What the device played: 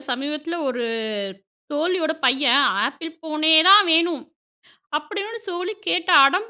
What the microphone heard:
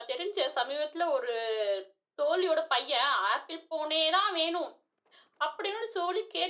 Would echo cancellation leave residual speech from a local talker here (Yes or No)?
No